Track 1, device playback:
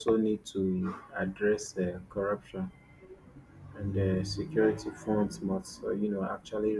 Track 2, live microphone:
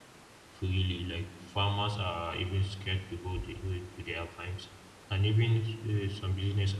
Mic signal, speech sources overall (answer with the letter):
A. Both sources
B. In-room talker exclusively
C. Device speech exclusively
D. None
B